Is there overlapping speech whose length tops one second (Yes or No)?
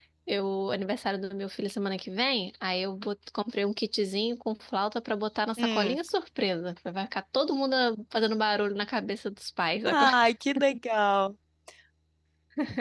No